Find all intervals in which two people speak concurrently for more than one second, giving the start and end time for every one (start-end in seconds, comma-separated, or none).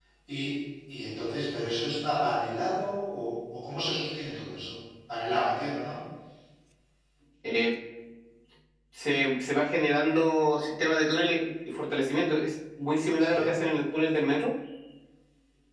none